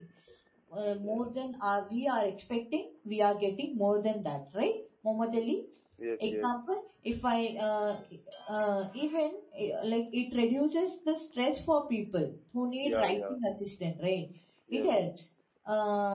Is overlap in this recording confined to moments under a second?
Yes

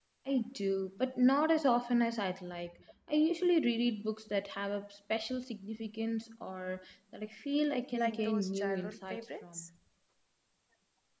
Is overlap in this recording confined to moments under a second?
No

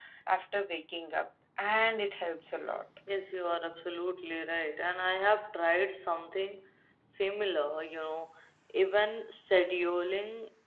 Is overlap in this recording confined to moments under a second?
Yes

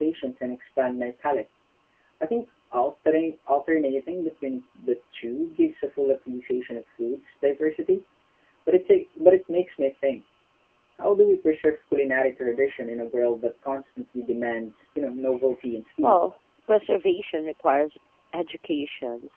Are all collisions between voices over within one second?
Yes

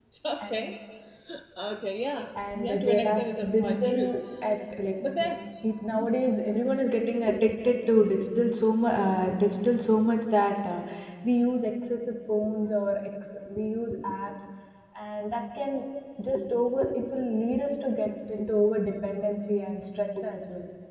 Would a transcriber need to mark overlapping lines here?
Yes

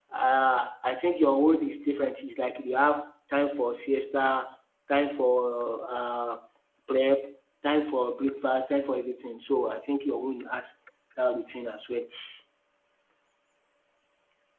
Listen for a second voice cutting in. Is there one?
No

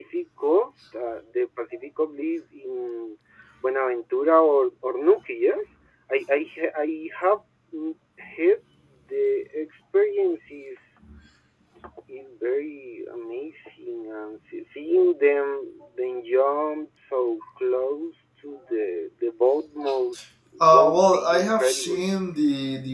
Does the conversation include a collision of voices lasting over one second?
Yes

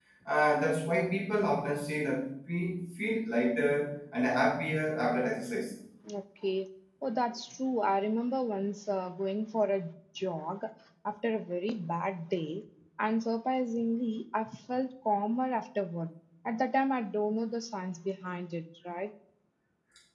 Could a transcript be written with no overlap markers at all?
Yes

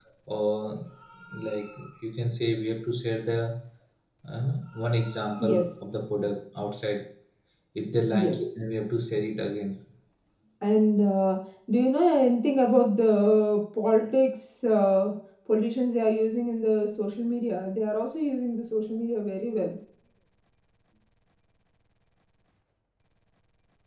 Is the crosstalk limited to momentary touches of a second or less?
Yes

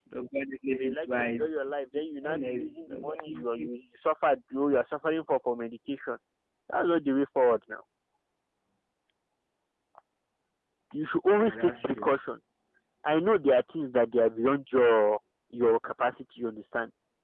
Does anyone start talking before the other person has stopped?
Yes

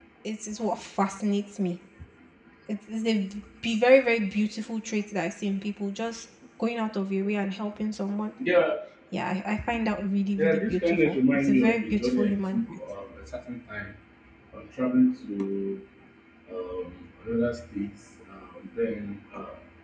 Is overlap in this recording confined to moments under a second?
No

